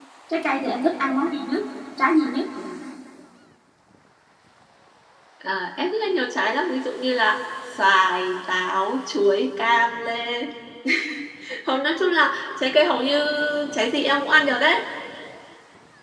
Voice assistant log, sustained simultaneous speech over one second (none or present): none